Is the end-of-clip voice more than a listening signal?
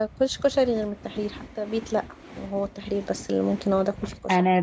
Yes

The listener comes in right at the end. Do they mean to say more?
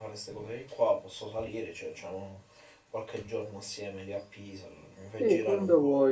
Yes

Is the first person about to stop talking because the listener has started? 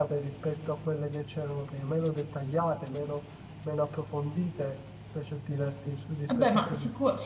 Yes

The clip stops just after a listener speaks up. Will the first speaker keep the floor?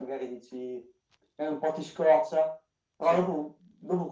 Yes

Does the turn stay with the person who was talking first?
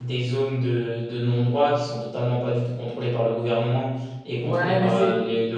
No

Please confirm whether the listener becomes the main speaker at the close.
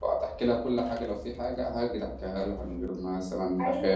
Yes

